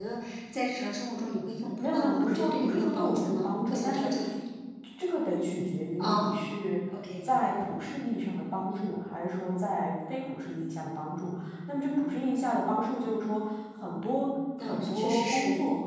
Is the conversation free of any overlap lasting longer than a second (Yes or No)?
No